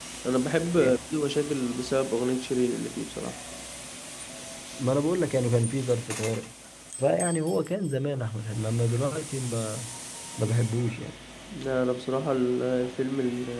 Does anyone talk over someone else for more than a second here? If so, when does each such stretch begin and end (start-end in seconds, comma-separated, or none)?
none